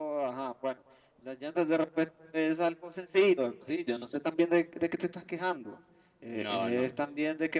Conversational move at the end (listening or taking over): listening